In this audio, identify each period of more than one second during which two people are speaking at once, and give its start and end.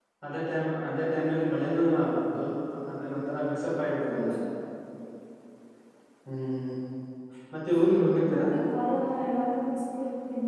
none

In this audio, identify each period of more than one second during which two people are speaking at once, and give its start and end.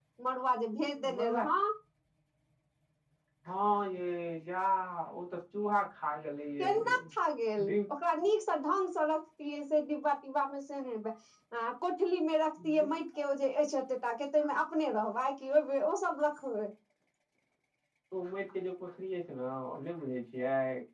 none

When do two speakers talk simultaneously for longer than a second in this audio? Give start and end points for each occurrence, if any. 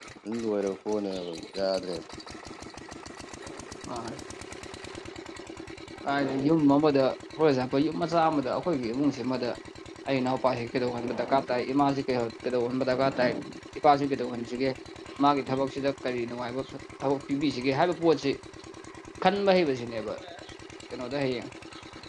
none

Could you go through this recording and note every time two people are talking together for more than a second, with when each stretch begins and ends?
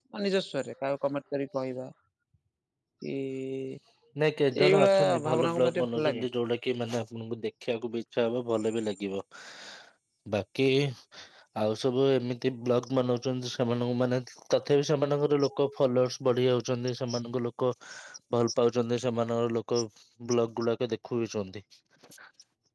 4.7-6.3

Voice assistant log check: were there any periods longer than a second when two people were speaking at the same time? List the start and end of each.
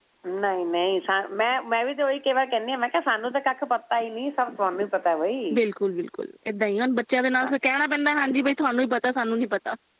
none

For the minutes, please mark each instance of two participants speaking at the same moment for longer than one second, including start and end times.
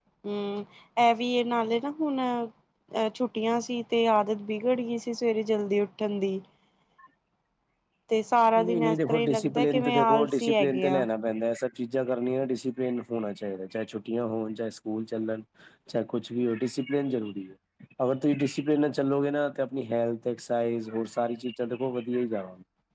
8.6-11.1

